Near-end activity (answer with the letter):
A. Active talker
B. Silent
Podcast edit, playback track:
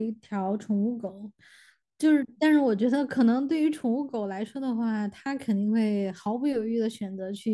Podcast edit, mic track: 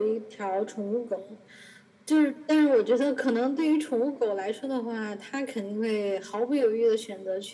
B